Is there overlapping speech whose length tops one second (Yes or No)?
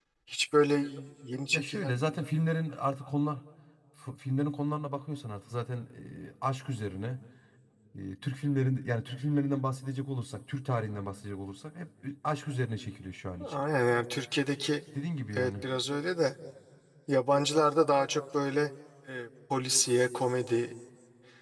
No